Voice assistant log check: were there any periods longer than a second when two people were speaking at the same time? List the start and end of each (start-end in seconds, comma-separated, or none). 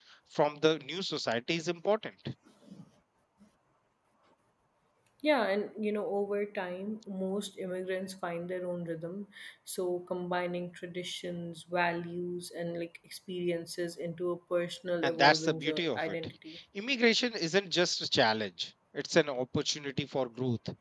15.0-16.3